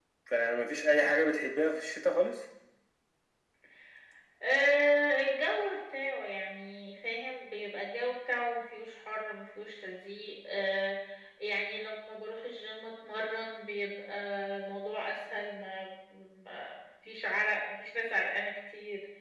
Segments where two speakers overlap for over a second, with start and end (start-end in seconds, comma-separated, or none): none